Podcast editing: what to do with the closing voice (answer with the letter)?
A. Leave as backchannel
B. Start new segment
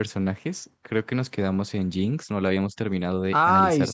B